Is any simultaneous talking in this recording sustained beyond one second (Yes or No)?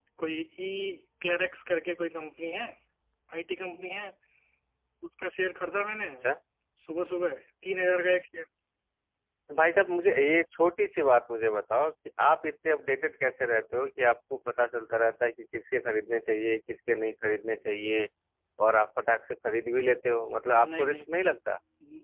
No